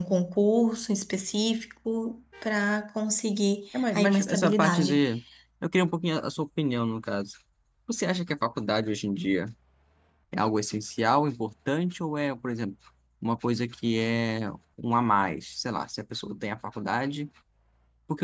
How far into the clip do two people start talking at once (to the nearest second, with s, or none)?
4 s